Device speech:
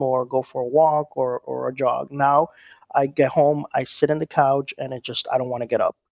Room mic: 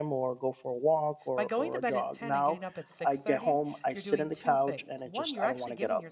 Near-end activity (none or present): present